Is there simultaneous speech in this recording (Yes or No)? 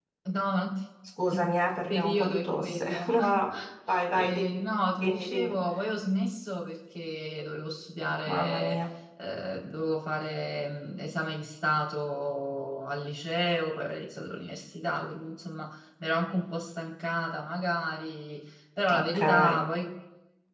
Yes